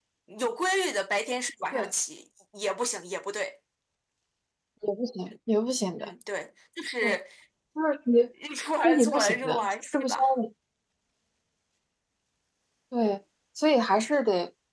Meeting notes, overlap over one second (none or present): present